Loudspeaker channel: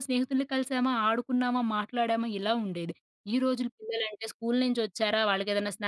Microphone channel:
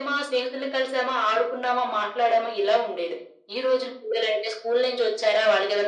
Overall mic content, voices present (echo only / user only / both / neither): echo only